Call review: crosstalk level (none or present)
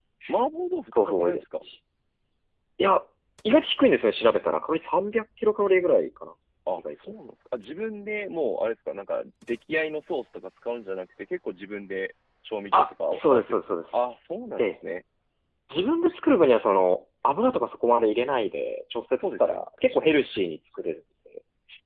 present